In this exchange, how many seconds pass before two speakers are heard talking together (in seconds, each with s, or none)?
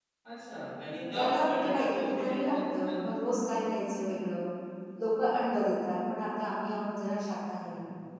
1.0 s